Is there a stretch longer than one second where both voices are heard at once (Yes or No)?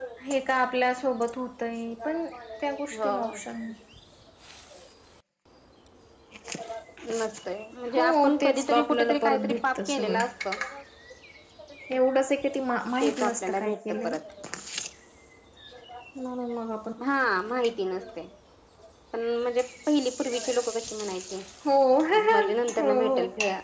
Yes